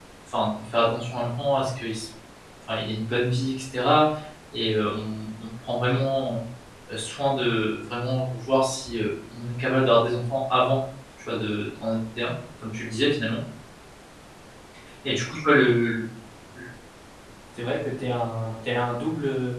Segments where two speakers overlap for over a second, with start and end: none

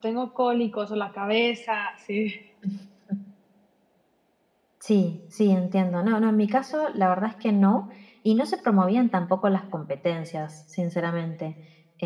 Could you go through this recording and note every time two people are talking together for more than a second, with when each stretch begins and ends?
none

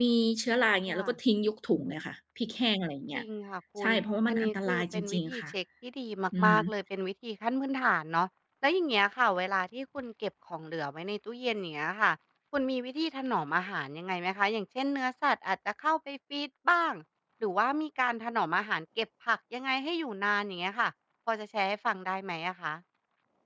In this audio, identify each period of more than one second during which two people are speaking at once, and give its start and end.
4.3-5.5

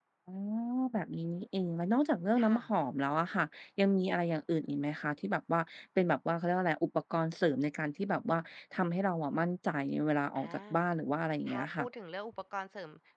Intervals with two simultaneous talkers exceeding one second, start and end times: none

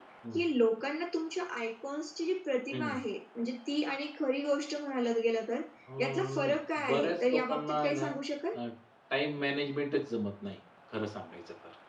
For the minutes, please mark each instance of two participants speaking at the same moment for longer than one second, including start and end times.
6.9-8.1

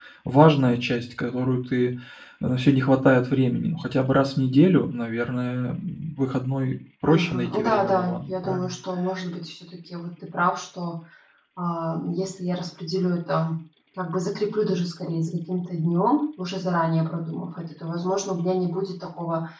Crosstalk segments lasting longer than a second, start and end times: 7.0-8.7

